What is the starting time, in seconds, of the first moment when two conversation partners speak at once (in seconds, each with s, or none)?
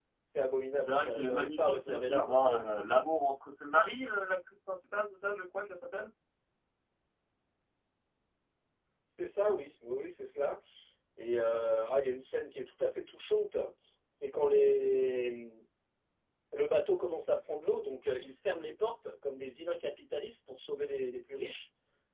0.8 s